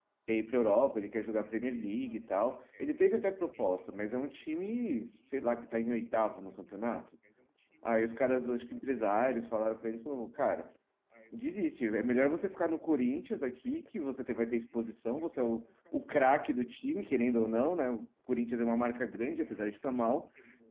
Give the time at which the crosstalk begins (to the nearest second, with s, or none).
none